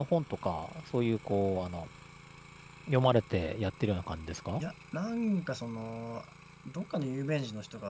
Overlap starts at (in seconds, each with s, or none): none